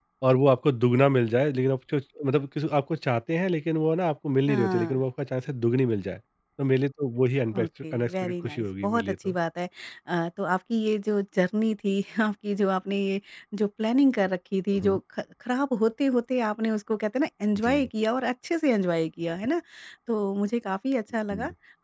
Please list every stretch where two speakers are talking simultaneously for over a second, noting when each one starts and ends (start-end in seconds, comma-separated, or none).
7.6-9.3